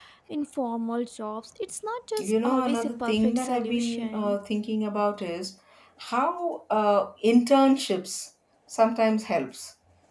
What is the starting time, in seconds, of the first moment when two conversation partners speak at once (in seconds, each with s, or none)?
2.2 s